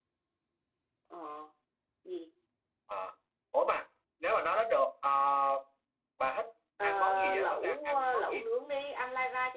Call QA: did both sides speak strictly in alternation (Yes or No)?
No